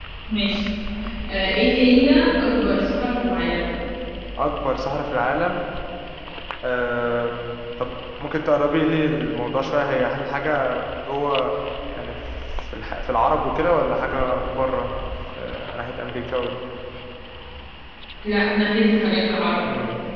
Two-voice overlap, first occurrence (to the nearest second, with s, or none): none